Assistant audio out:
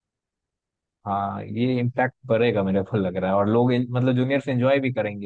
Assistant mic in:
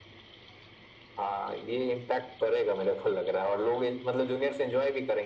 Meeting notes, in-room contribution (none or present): none